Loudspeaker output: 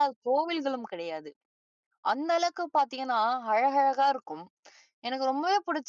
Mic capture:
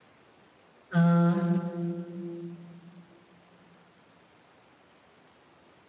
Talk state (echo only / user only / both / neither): user only